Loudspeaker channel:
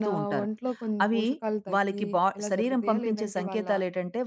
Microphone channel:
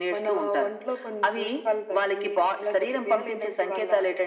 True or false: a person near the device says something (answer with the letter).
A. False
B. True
A